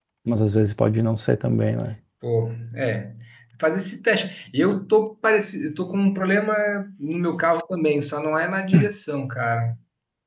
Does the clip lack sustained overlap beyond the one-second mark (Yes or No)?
Yes